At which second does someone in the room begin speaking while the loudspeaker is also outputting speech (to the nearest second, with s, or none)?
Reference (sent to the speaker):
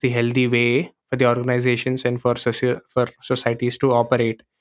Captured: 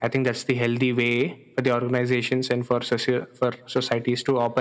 none